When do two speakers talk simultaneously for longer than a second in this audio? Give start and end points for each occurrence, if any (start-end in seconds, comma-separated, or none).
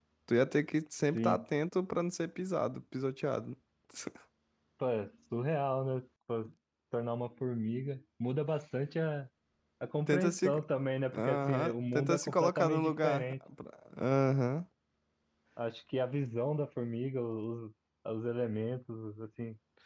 11.1-13.3